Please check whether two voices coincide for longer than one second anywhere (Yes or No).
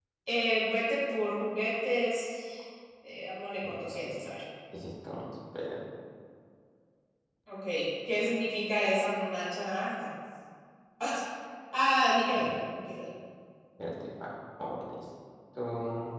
No